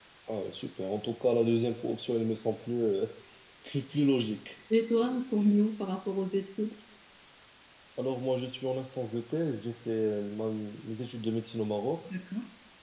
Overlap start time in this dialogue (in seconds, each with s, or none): none